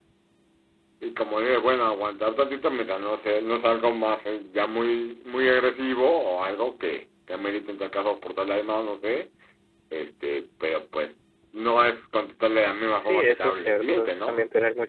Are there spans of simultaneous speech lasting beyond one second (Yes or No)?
Yes